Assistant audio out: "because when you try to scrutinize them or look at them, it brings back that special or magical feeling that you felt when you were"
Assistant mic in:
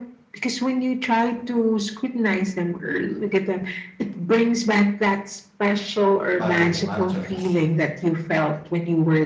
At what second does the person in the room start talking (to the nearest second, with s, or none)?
6 s